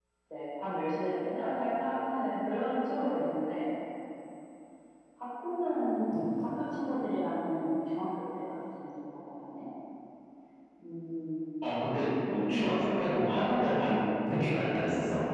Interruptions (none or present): none